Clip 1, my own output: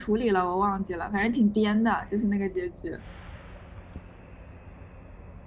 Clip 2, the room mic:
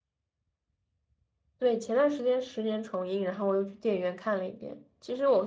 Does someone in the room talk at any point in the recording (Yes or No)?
Yes